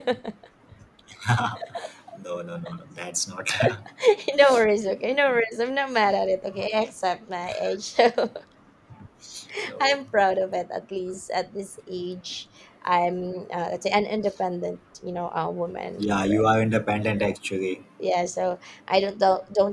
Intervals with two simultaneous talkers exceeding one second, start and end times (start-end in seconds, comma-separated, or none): none